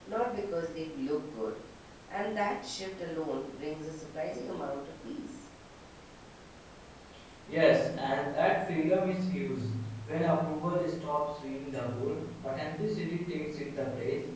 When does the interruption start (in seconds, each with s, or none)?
none